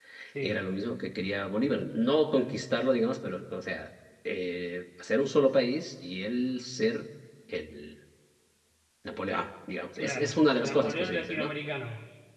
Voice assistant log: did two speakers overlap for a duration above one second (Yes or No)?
Yes